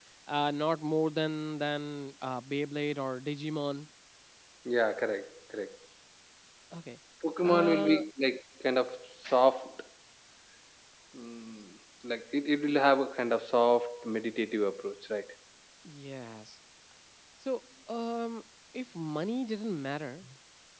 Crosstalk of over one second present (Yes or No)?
No